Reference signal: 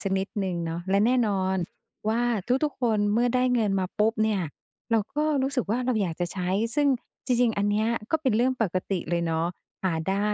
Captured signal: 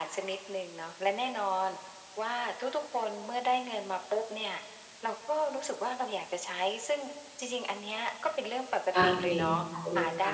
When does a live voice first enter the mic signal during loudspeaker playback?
8.9 s

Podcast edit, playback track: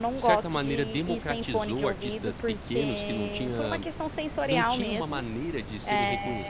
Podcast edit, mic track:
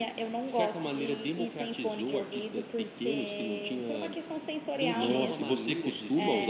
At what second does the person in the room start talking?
4.9 s

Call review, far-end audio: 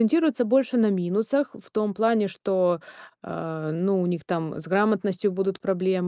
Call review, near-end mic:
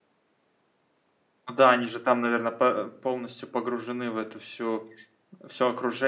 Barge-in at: 1.5 s

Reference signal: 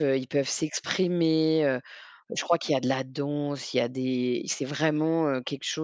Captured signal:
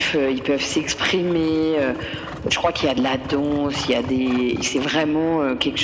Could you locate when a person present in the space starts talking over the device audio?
none

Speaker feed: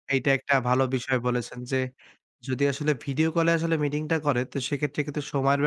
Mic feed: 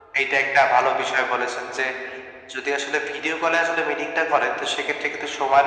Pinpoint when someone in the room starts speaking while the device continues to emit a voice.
none

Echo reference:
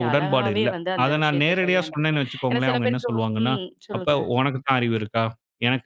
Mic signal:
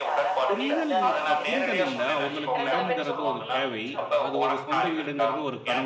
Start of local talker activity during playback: 0.5 s

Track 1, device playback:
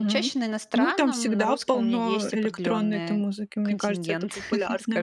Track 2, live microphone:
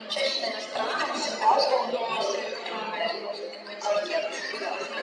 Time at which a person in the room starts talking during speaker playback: none

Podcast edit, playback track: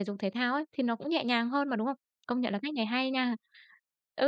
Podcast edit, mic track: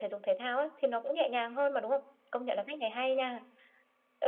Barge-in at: none

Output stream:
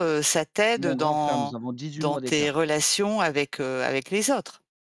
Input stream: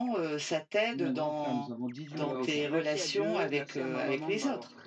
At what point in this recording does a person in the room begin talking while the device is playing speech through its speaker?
2.1 s

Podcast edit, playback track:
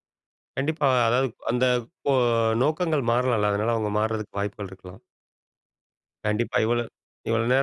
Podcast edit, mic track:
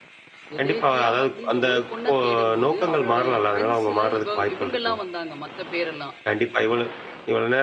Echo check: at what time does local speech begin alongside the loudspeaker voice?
0.6 s

